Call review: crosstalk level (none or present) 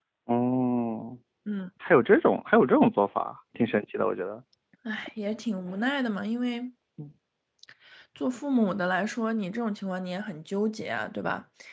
none